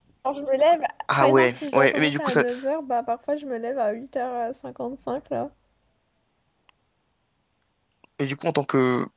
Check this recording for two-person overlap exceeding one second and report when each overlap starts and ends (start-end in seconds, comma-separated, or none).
1.2-2.4